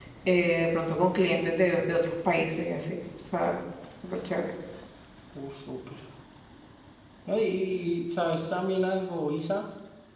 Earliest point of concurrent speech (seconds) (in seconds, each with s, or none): none